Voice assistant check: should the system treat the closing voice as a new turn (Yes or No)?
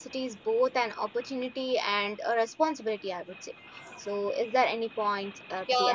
Yes